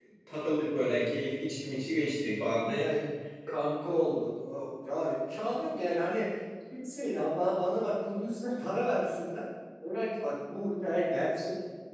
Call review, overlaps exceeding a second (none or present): none